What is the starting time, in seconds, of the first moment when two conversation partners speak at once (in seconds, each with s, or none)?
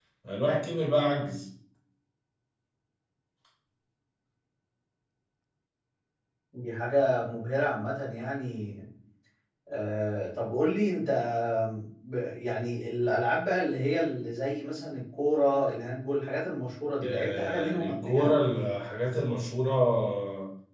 17.0 s